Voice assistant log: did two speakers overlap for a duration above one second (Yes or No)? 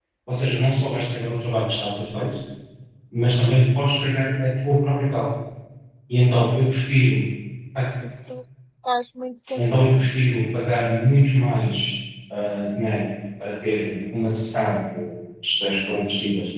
No